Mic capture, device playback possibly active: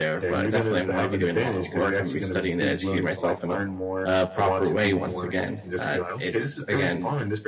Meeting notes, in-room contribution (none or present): present